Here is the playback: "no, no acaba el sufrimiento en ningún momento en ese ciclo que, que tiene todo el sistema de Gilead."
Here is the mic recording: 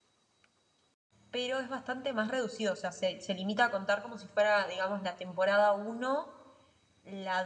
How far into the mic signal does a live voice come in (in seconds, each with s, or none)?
1.3 s